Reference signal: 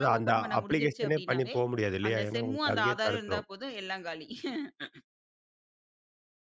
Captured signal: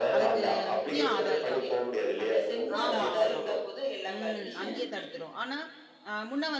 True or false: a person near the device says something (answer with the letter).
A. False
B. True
B